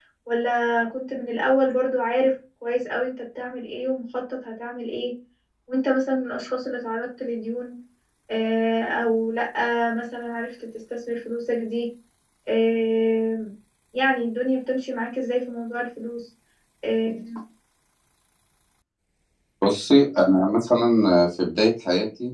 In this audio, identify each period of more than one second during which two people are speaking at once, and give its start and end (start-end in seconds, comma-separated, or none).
none